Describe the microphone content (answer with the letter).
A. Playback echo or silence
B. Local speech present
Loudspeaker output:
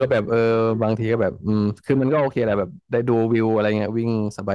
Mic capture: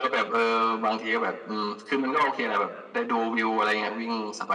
A